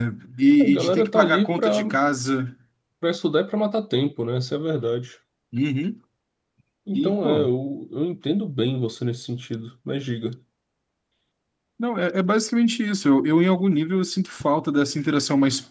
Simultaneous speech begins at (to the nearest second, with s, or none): 1 s